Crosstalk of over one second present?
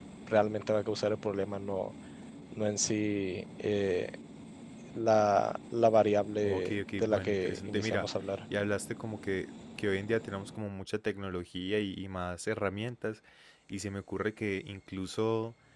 Yes, from 6.4 s

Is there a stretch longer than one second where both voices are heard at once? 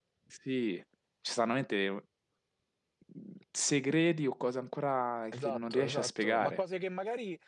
Yes, from 5.3 s

